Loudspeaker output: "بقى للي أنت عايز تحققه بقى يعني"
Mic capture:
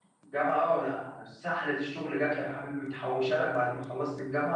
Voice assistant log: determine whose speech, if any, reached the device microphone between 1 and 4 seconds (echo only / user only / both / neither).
user only